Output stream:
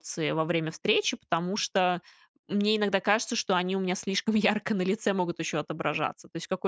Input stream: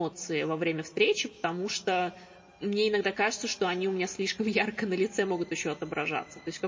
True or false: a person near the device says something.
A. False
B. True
A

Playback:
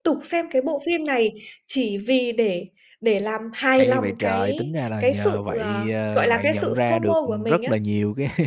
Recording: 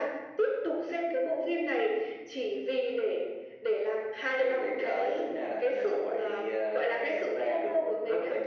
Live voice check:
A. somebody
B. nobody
B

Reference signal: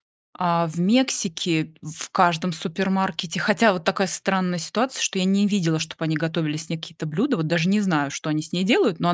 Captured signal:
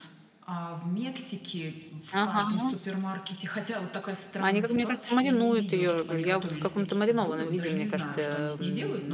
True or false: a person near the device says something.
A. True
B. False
A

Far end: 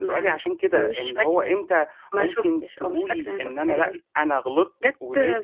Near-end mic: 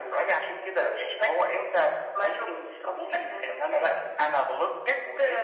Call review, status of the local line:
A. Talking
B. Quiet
B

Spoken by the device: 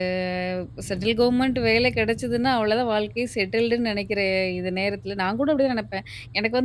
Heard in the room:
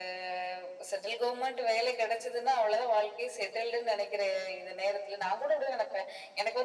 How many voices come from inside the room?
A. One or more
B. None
B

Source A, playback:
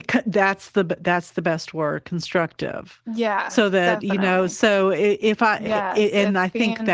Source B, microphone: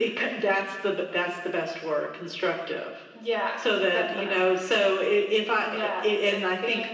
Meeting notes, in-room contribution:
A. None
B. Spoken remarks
A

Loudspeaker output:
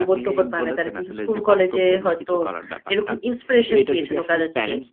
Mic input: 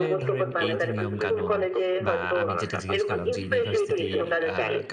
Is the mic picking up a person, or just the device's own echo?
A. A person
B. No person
A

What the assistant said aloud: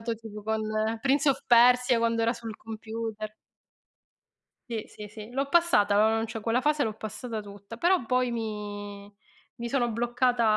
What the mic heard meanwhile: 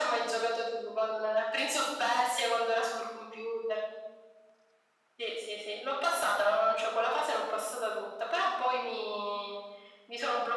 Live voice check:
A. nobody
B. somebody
A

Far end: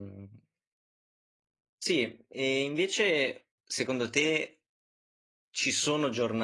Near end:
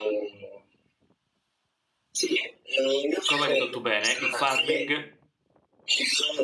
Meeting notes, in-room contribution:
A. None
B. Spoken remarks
B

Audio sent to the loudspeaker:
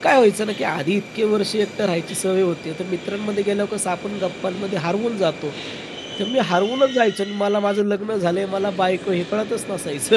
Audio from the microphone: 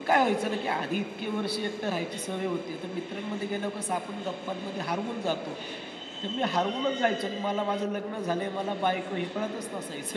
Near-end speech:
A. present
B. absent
B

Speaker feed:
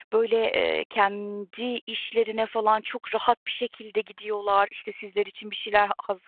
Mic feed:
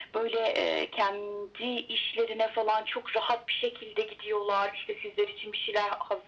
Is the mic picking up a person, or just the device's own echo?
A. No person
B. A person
A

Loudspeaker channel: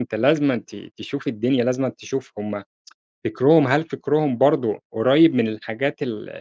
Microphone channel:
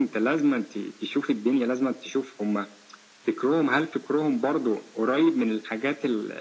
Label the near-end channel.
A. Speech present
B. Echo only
B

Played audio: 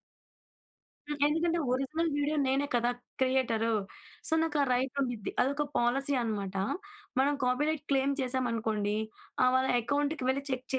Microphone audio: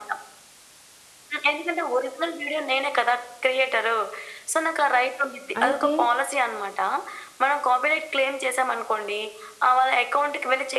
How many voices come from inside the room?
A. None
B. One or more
B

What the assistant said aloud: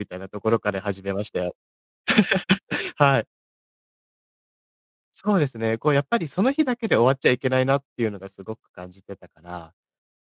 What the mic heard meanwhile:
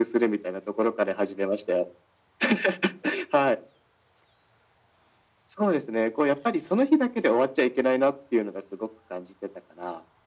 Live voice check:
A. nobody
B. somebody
A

